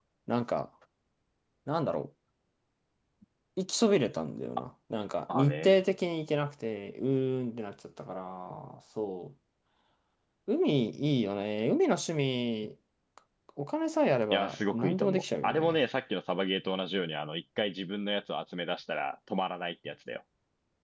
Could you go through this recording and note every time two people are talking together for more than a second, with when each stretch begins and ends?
14.3-15.8

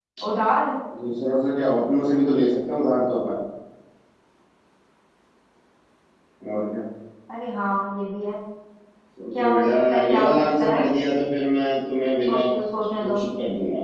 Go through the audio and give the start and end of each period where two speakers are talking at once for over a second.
9.3-10.8

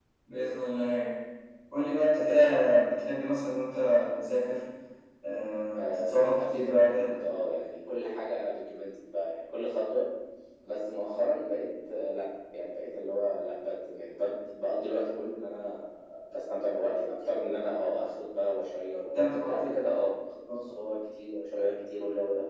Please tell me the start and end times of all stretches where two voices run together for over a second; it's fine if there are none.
5.8-7.1

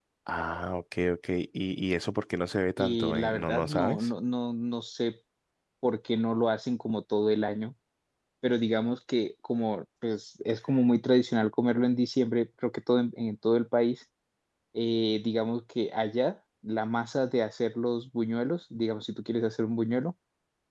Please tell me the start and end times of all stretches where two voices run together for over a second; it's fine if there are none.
2.8-4.1

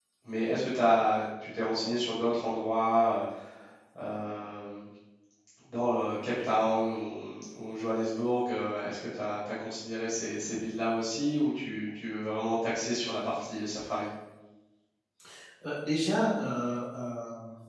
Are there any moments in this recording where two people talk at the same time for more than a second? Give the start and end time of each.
none

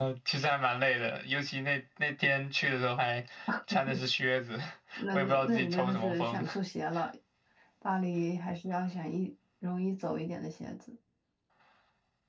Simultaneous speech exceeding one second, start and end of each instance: 5.1-6.4

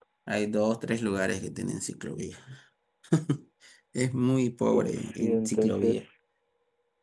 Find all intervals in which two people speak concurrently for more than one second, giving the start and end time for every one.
4.7-6.0

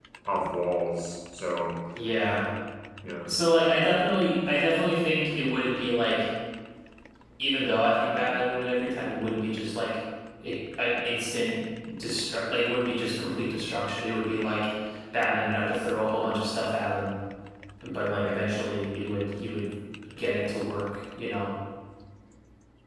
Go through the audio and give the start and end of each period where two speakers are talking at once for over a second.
none

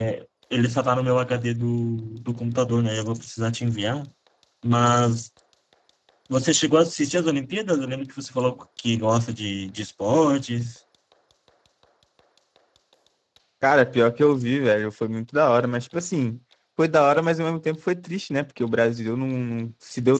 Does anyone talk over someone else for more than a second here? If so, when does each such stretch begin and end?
none

